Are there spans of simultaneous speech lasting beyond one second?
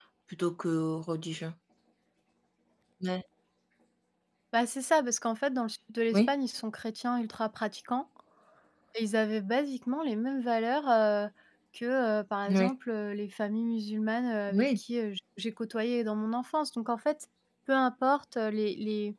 No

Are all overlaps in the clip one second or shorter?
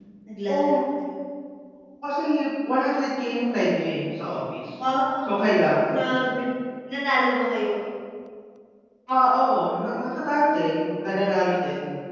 Yes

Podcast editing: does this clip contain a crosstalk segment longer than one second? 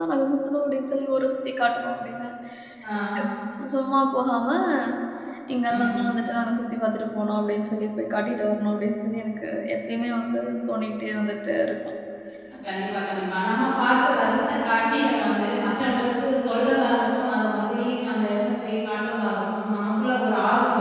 No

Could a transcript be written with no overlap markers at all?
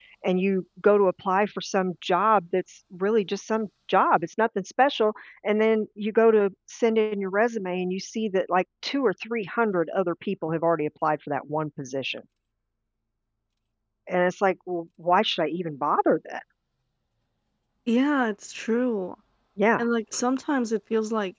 Yes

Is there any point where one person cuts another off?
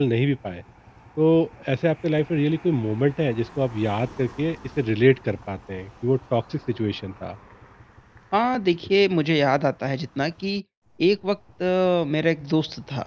No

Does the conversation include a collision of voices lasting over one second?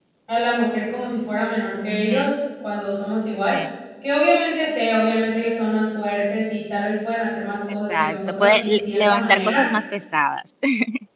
Yes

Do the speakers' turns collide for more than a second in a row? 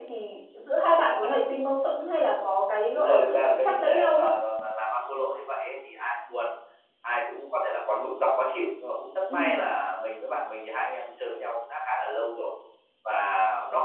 Yes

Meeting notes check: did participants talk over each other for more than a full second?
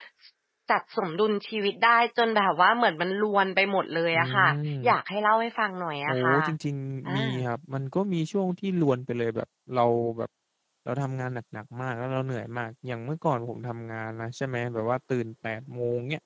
No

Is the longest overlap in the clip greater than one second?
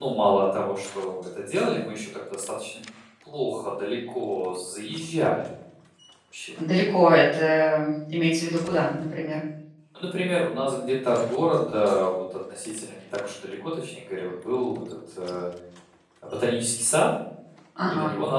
No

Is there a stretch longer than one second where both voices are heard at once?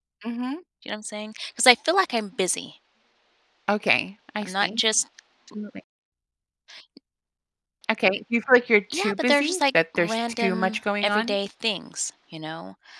Yes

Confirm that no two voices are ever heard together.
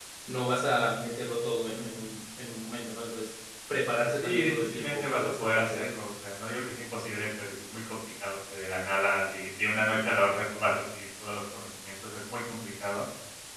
No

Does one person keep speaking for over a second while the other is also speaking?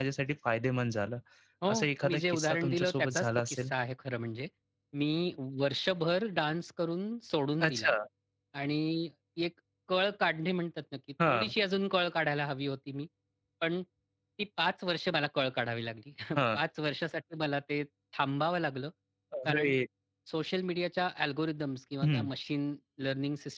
Yes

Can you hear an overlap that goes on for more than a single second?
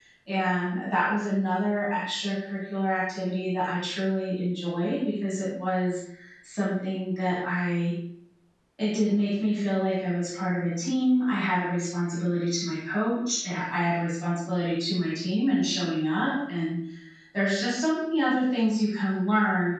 No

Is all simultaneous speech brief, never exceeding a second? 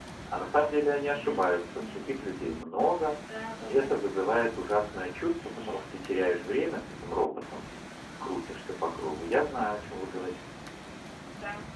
Yes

